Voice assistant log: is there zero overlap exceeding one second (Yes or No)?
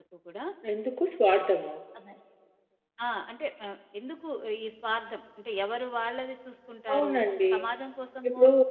Yes